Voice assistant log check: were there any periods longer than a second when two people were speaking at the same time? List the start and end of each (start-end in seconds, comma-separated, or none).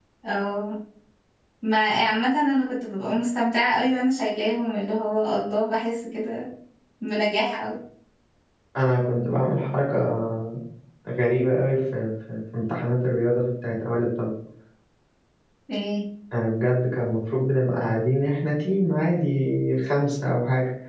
none